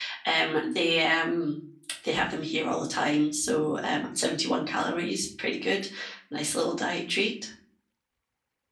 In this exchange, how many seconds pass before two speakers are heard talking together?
none

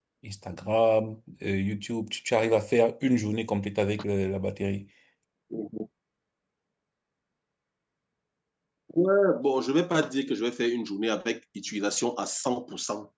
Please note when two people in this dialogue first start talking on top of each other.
none

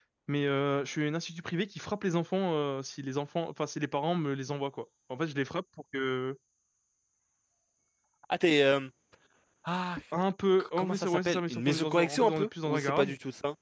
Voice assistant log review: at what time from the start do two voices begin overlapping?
11 s

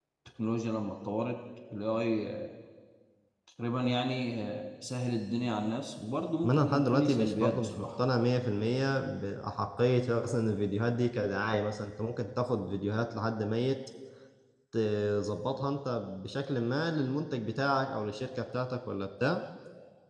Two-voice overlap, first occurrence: 6 s

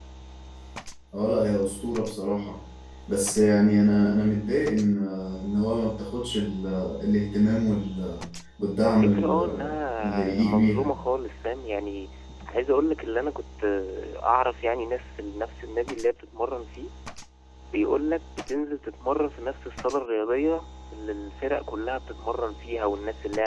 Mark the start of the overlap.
9 s

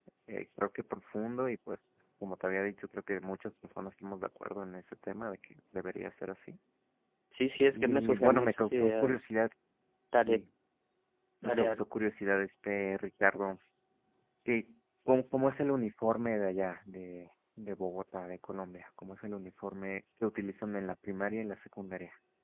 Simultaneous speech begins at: 8 s

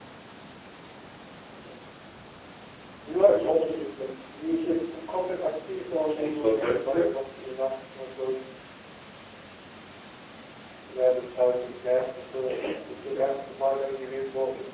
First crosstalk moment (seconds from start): 6 s

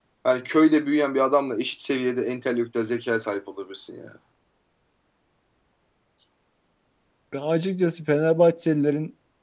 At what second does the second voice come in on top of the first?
none

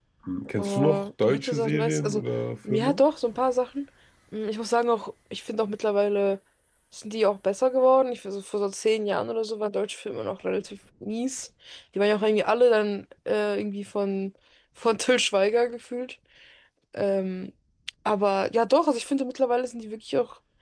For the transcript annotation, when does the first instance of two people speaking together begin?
1 s

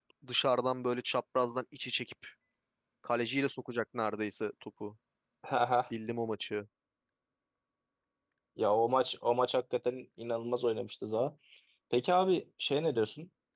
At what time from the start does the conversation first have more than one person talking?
none

